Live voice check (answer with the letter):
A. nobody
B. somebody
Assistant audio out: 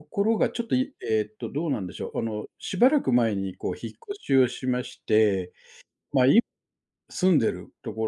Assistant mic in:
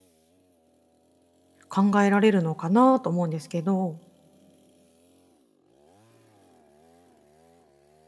B